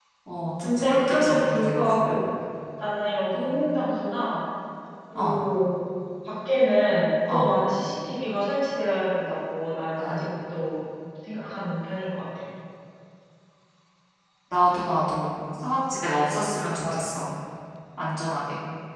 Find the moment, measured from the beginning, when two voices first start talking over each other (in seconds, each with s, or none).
0.6 s